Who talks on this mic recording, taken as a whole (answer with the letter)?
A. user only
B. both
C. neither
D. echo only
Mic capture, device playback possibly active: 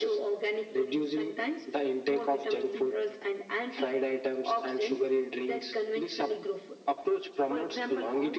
D